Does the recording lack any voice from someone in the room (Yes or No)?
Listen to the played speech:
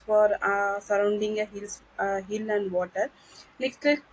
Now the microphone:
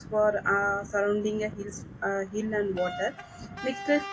Yes